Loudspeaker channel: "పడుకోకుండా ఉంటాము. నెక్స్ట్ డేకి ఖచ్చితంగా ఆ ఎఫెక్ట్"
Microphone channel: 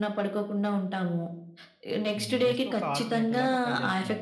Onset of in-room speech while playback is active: 2 s

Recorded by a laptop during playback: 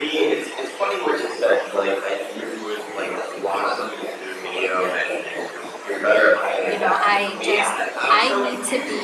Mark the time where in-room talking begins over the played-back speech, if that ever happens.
7 s

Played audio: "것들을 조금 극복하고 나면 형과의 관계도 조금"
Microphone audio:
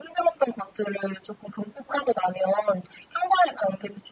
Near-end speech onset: none

